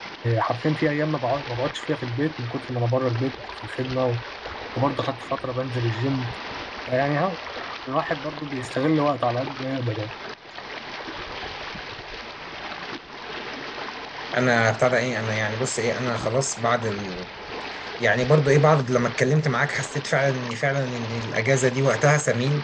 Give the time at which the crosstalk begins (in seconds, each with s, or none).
none